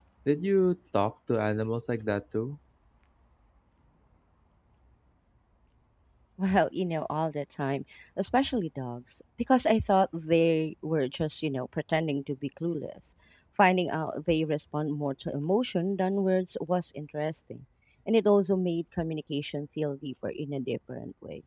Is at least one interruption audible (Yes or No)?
No